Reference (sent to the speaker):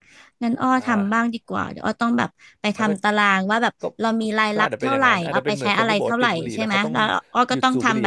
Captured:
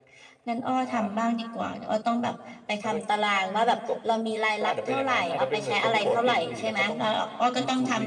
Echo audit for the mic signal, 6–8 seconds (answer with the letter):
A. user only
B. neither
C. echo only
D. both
C